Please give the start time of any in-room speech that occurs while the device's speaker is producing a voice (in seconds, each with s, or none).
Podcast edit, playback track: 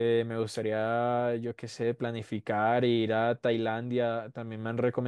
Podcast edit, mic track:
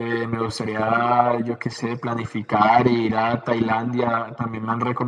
none